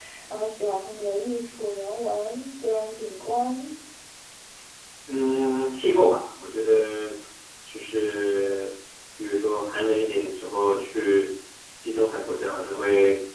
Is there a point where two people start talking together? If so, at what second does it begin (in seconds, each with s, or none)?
none